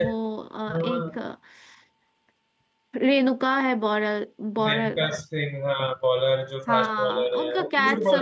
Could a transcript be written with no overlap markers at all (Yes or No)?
No